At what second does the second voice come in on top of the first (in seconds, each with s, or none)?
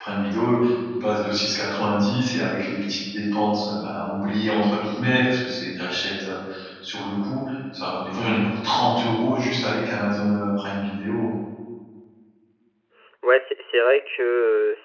none